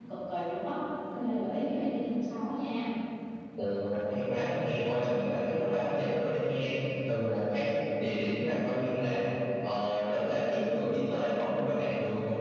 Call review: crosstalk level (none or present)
none